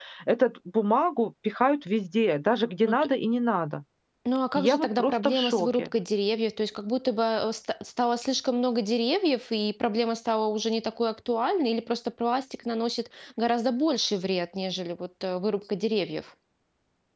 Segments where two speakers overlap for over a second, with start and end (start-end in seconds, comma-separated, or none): 4.5-5.9